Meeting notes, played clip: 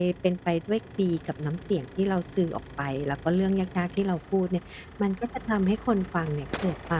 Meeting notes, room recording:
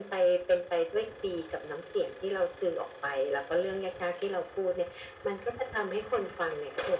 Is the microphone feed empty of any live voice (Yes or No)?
Yes